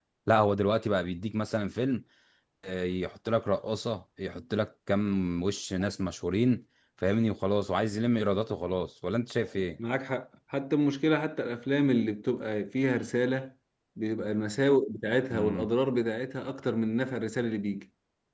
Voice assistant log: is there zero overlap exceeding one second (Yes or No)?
Yes